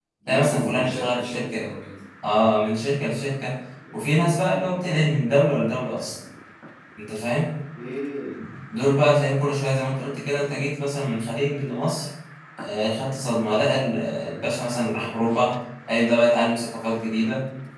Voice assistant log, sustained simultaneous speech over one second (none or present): present